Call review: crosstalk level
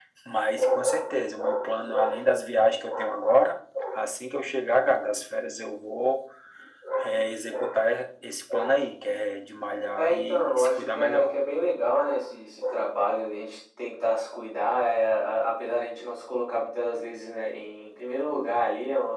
present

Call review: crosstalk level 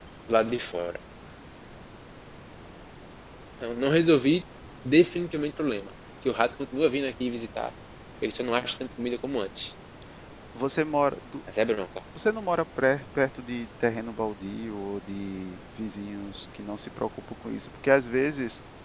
none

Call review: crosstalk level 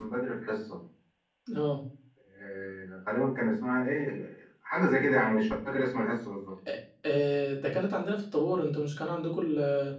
none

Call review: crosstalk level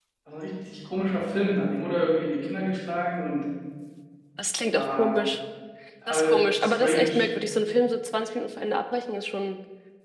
present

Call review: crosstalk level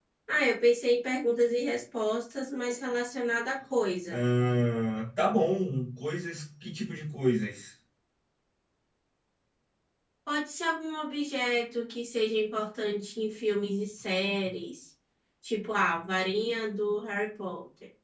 none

